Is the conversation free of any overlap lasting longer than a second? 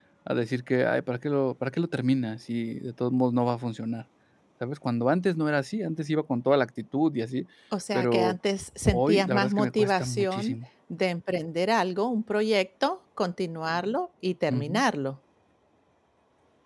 No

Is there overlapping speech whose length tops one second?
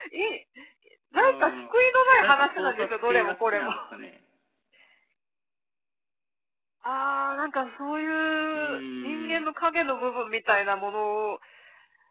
Yes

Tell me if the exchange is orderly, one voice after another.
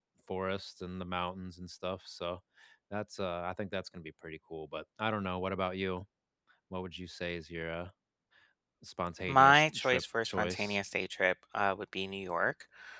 No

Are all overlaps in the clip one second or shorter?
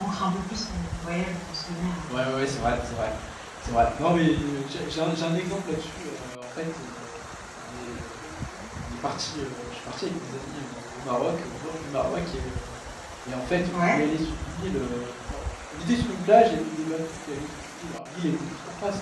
Yes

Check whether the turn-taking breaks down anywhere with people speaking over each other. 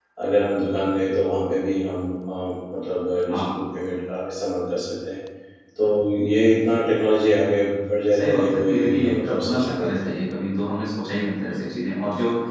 Yes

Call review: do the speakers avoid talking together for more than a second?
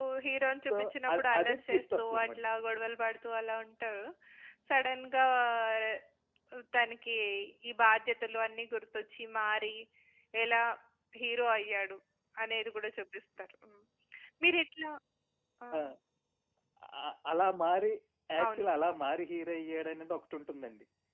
No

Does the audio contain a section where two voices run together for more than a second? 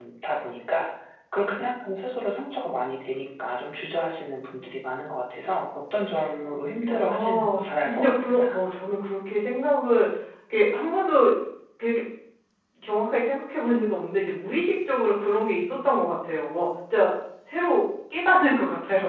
Yes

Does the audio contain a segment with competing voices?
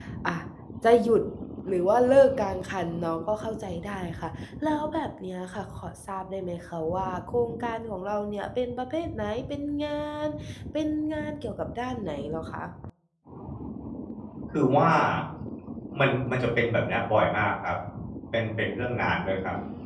No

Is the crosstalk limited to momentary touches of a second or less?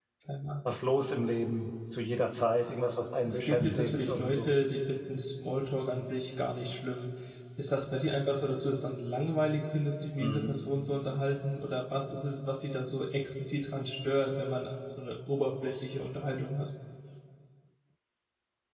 No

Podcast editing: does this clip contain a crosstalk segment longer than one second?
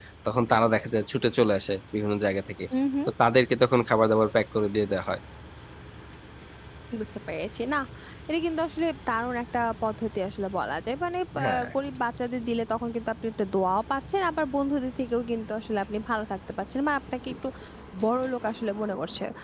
No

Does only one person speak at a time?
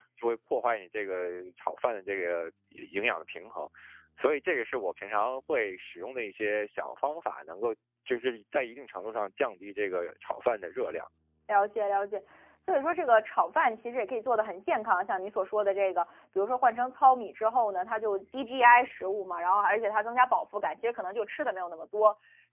Yes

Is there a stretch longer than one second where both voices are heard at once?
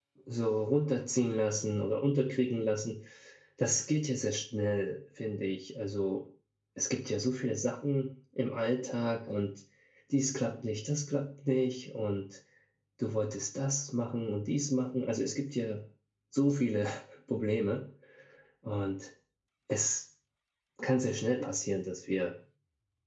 No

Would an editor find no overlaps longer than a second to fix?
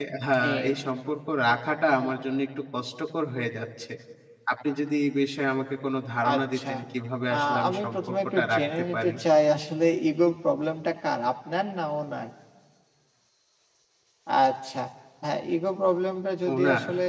No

